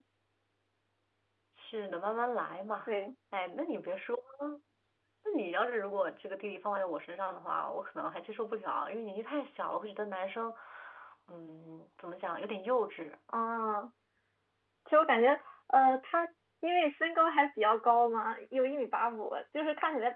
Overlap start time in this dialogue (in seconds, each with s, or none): none